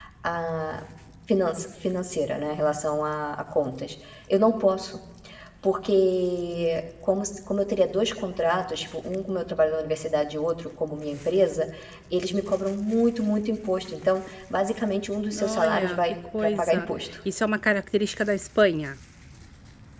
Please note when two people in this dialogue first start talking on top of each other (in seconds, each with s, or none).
15.3 s